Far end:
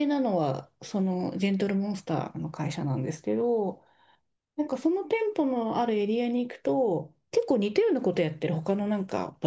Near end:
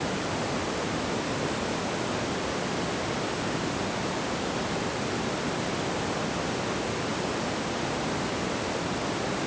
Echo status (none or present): none